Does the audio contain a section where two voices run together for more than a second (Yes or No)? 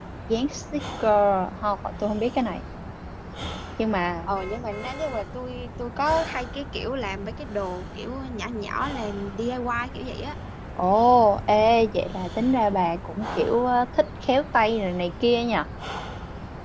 No